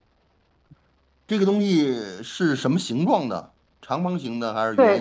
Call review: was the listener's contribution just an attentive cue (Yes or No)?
No